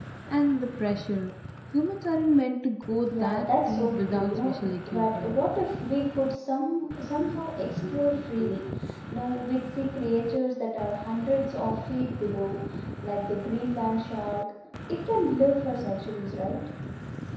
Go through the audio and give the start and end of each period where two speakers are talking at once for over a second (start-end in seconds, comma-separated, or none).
3.1-5.4